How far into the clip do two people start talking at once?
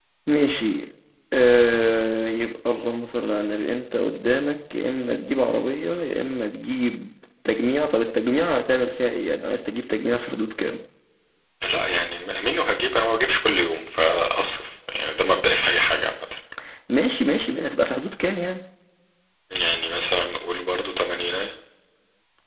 none

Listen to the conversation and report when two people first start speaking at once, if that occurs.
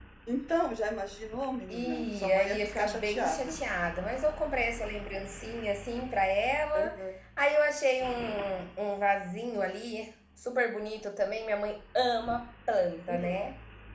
1.7 s

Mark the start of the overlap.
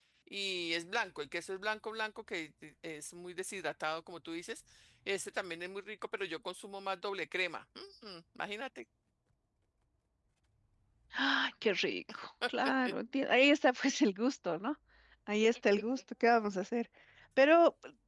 none

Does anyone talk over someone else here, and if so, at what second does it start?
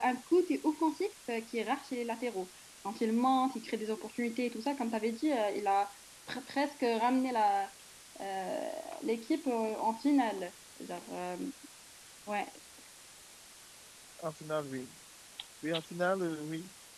none

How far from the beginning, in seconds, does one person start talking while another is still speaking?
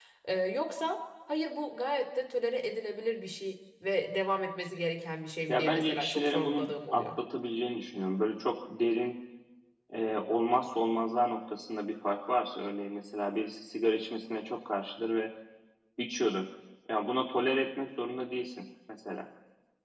5.5 s

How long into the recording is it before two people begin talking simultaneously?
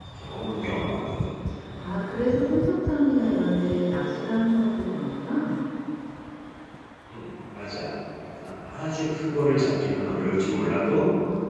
none

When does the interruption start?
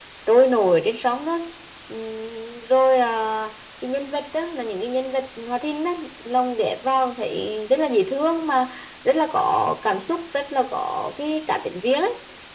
none

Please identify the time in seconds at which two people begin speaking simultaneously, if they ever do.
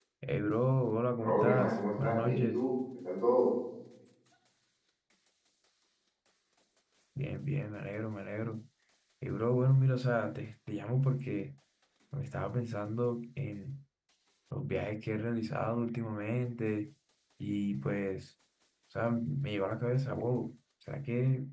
1.2 s

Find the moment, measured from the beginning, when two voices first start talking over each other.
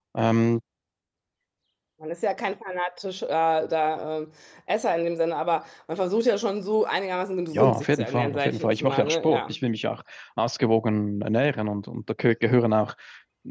7.5 s

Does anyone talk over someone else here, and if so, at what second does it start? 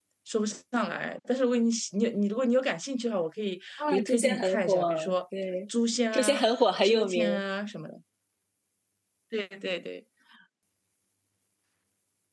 3.8 s

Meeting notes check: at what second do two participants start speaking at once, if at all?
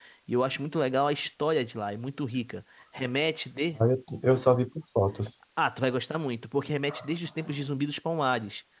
none

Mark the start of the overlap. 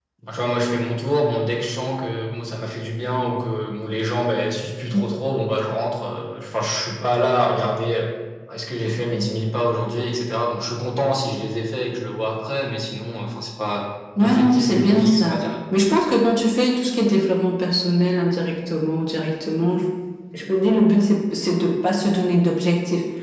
14.2 s

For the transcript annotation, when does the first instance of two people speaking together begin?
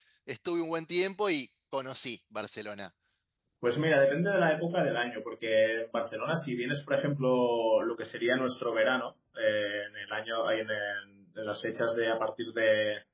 none

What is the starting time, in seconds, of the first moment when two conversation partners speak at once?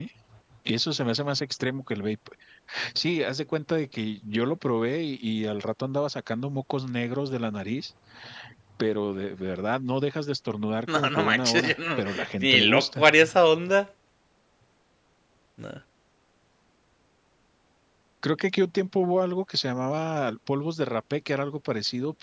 10.9 s

